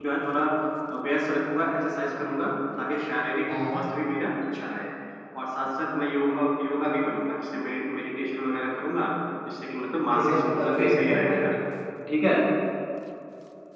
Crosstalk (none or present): present